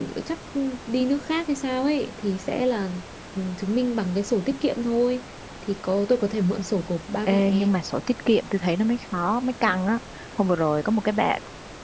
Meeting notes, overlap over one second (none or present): none